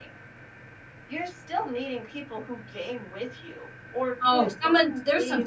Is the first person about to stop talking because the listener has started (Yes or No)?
Yes